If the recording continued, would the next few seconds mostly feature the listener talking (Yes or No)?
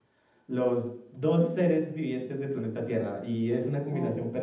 No